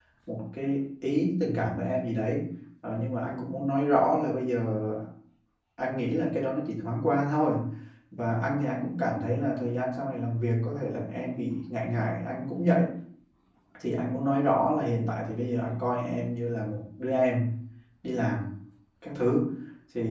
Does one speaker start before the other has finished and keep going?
No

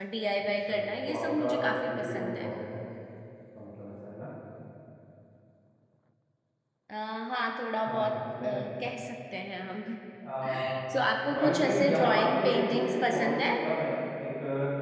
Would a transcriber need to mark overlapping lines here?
Yes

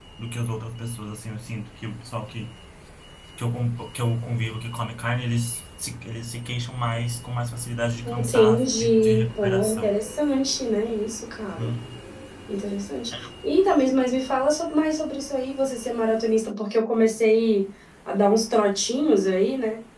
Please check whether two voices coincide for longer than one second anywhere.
Yes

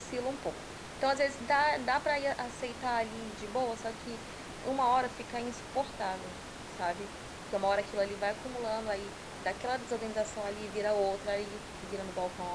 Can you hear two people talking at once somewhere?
No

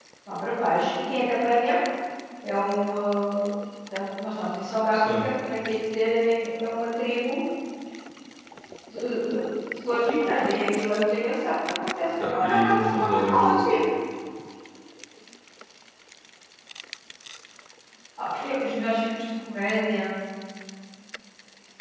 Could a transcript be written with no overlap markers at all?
No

